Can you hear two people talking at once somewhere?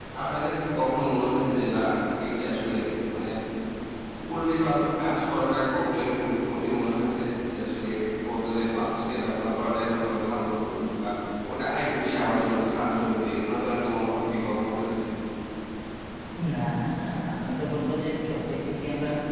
No

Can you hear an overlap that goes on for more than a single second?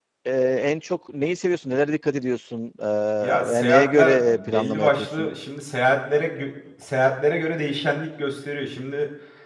Yes, from 3.2 s

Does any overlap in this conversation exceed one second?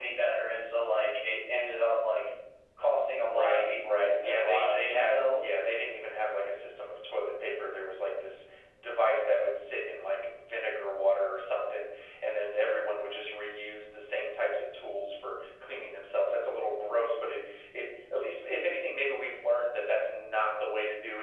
Yes, from 3.2 s

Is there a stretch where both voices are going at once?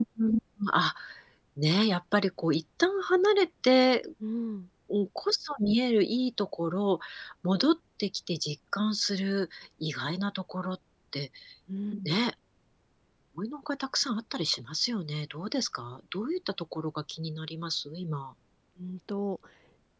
No

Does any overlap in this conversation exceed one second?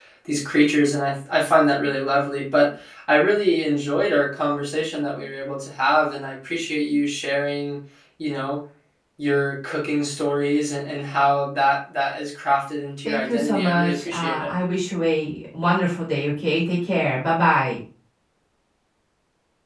Yes, from 13.0 s

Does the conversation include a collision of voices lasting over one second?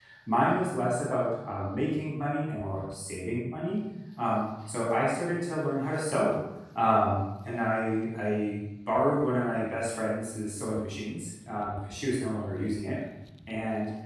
No

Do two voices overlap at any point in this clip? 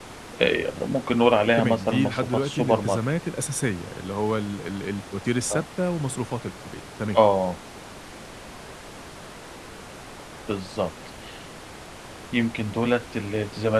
Yes, from 1.6 s

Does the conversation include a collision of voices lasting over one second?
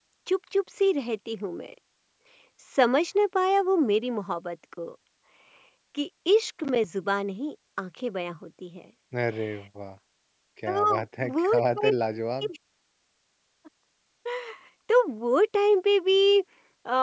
Yes, from 10.7 s

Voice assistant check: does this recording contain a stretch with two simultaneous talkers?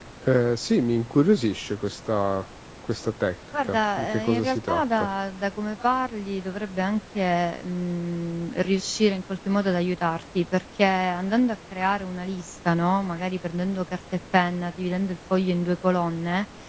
Yes, from 3.5 s

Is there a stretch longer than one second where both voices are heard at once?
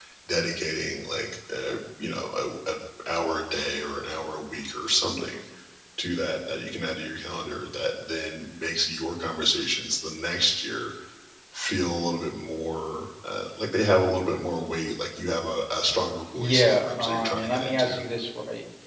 Yes, from 16.4 s

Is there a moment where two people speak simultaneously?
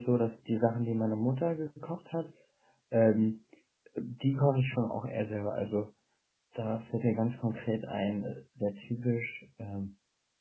No

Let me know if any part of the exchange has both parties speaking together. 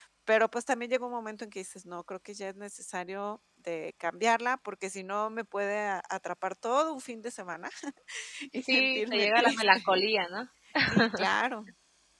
Yes, from 8.5 s

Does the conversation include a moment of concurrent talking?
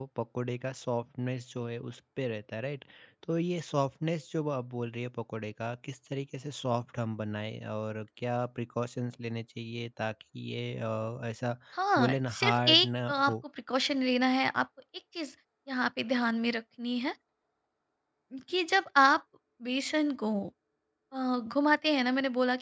Yes, from 12.0 s

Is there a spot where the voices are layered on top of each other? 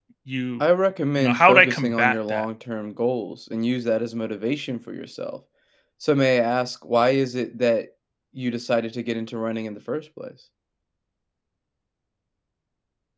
Yes, from 1.2 s

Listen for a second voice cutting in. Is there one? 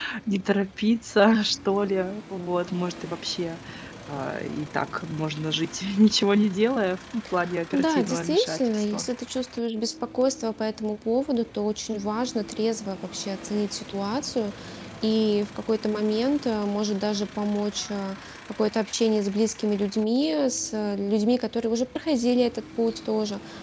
Yes, from 7.7 s

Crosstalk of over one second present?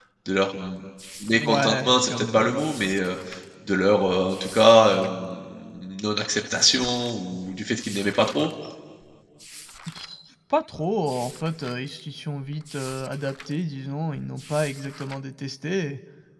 Yes, from 1.3 s

